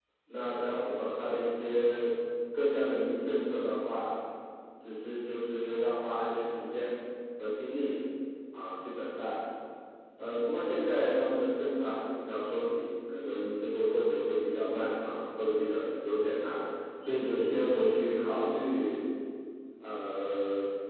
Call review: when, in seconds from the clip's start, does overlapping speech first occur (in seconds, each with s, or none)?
none